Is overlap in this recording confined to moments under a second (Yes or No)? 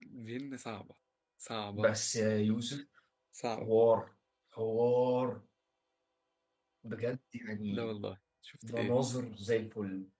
Yes